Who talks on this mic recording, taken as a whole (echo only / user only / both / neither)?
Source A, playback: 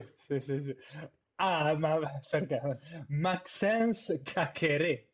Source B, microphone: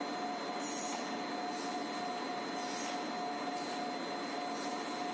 neither